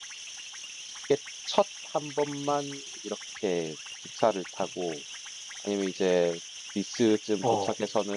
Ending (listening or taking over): listening